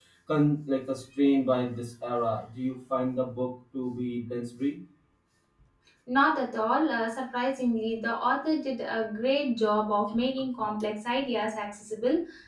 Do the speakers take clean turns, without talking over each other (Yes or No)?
Yes